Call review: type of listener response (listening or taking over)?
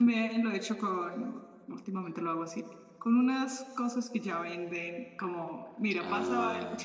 listening